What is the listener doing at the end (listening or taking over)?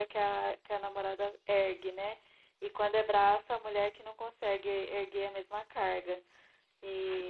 listening